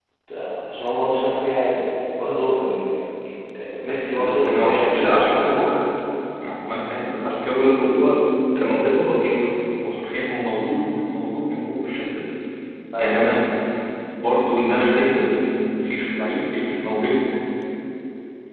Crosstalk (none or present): present